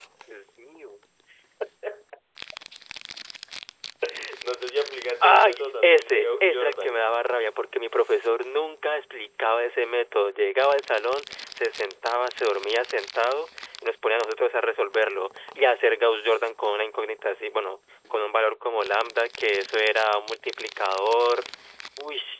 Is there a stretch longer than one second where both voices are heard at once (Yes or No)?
Yes